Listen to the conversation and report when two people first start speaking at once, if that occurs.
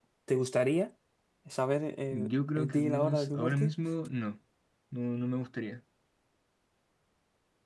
2 s

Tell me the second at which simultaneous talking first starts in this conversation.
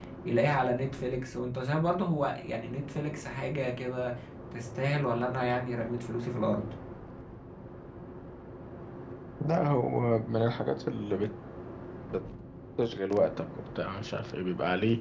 none

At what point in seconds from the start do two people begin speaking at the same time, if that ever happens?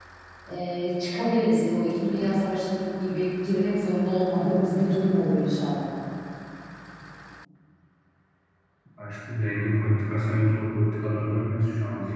none

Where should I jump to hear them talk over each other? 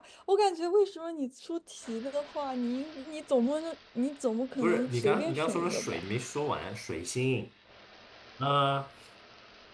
5 s

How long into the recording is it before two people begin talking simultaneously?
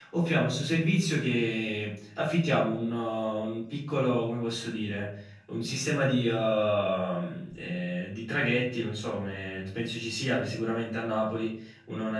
none

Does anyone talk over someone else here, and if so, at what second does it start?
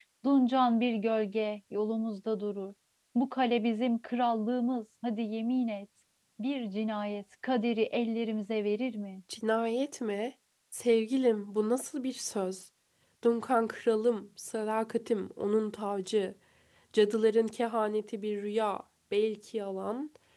none

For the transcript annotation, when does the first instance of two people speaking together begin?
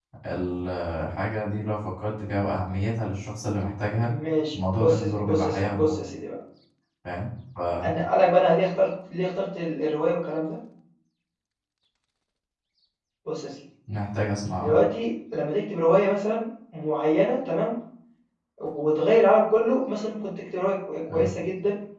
5 s

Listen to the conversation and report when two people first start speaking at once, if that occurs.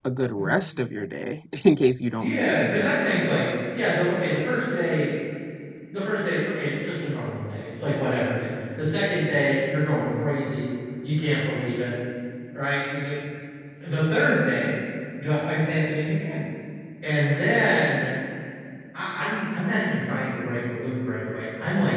2 s

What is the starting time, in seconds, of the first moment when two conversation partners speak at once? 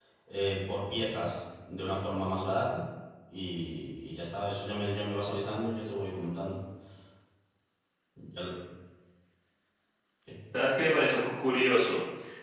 none

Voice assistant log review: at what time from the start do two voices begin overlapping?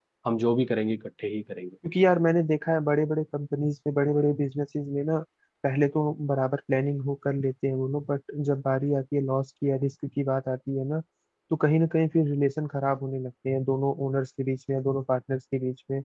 none

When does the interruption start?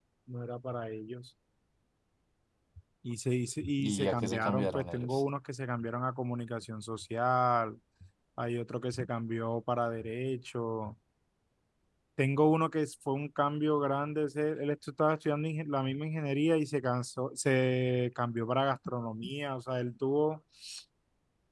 4 s

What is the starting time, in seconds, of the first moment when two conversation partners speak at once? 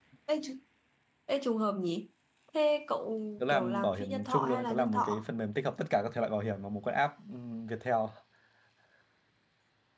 3 s

